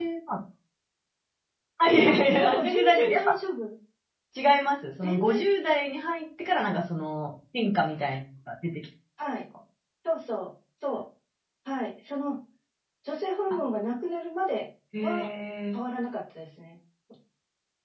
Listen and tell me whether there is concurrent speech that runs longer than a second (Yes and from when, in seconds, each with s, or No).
Yes, from 2.0 s